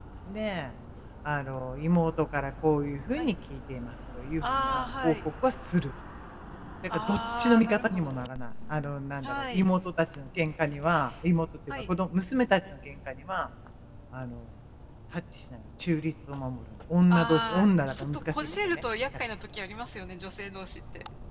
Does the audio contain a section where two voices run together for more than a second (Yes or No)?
Yes